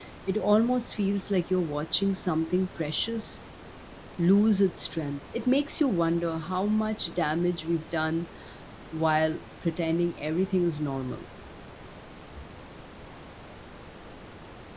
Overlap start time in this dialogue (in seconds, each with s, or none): none